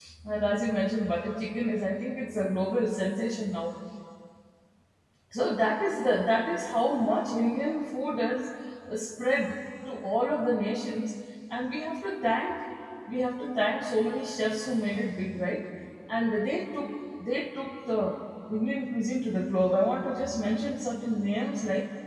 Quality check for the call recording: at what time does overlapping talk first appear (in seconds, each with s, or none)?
none